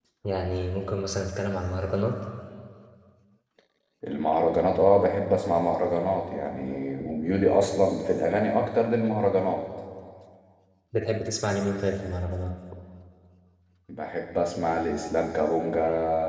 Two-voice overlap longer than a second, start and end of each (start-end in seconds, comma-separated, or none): none